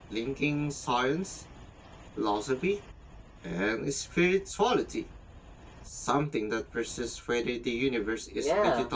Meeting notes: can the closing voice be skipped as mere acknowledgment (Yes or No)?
No